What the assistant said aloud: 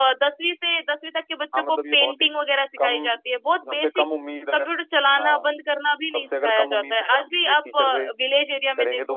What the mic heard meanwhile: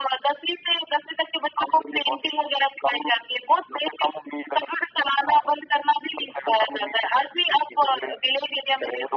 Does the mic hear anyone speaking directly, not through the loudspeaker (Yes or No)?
No